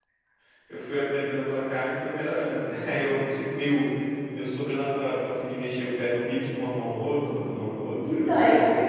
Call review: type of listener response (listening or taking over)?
taking over